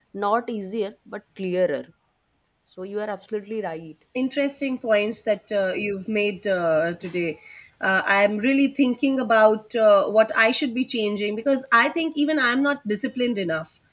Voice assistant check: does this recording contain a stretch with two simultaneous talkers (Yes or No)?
No